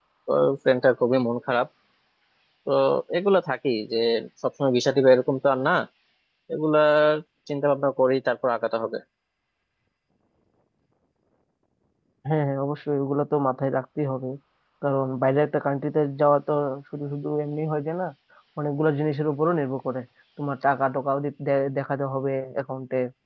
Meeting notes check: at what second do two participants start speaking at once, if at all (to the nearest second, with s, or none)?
none